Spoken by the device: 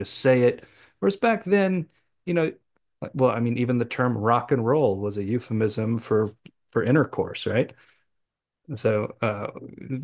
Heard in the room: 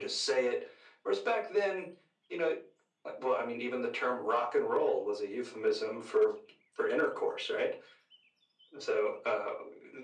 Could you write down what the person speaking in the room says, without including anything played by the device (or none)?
none